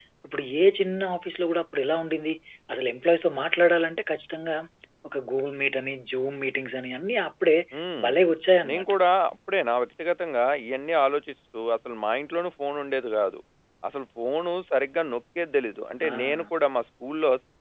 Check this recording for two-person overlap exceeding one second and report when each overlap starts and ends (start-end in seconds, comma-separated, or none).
none